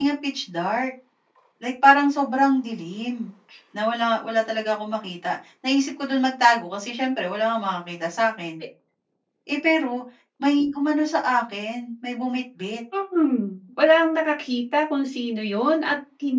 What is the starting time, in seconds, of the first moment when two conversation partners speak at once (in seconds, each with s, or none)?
none